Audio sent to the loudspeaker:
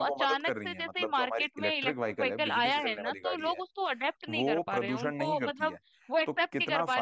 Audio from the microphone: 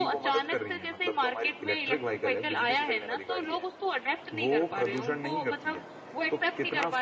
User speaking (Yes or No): No